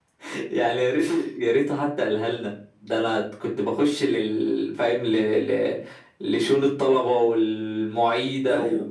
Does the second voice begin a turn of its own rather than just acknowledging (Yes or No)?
No